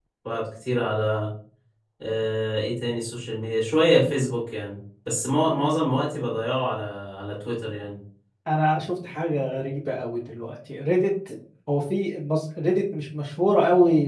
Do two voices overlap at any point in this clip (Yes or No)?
No